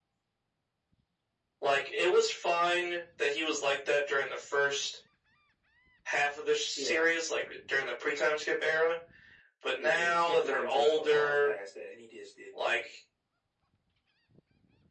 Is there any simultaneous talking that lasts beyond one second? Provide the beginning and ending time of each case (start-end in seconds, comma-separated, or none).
9.8-11.5